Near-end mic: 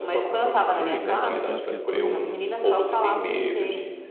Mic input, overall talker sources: both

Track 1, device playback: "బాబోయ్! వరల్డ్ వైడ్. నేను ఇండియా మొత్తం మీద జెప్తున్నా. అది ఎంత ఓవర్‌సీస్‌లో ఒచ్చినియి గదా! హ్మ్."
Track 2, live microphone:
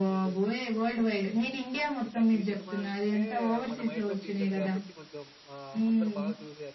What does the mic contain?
both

